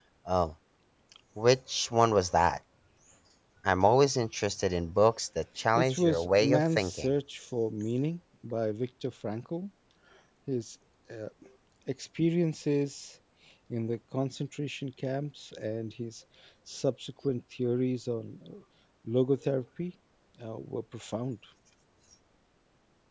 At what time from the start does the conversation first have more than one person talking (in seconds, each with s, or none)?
5.8 s